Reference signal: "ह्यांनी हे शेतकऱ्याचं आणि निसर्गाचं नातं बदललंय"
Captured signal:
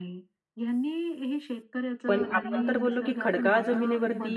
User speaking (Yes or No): Yes